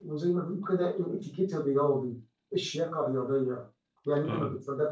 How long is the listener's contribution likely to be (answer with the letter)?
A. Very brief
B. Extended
A